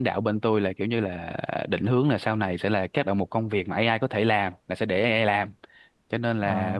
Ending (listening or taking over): listening